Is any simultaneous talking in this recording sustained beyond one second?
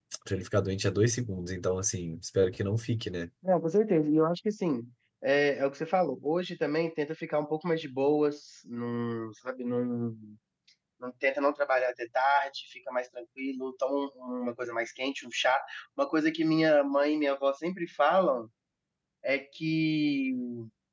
No

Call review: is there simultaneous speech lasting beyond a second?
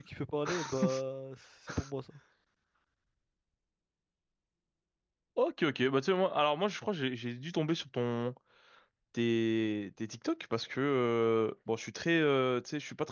No

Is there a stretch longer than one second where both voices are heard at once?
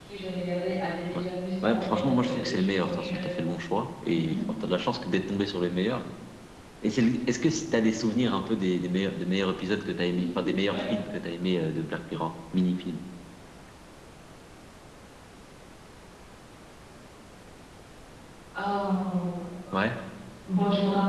Yes, from 1.6 s

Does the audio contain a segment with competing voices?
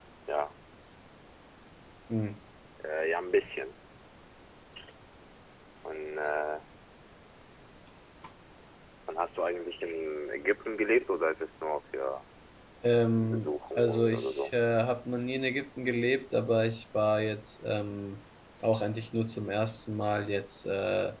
Yes, from 13.2 s

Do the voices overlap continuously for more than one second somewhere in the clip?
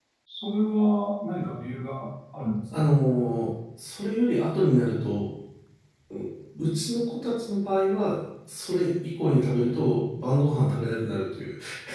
No

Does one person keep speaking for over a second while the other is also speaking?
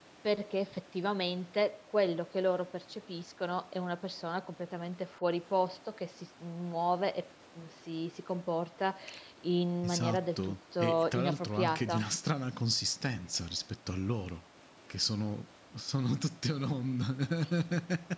Yes, from 9.8 s

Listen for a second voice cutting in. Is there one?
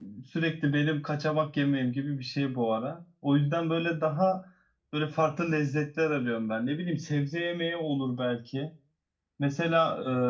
No

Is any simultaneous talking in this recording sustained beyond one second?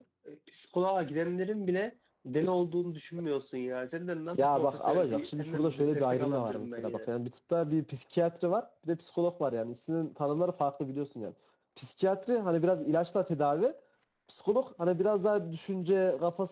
Yes, from 4.3 s

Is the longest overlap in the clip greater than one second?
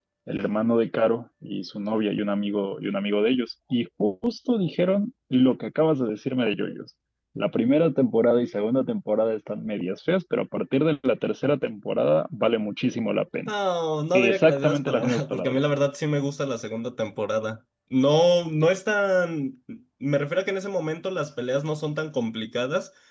Yes, from 14.1 s

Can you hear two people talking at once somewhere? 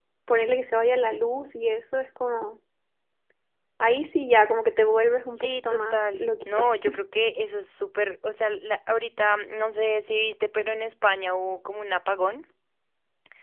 Yes, from 5.3 s

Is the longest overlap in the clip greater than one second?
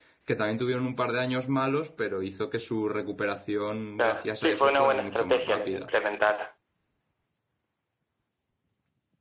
Yes, from 4.0 s

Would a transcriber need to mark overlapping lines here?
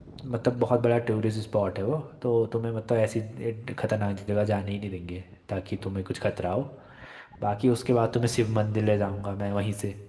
No

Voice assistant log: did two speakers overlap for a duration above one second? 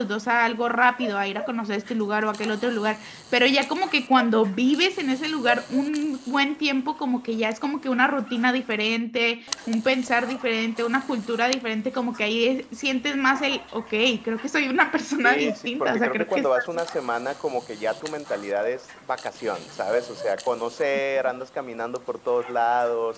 Yes, from 15.2 s

